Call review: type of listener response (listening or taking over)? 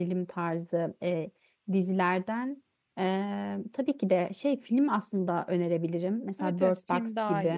taking over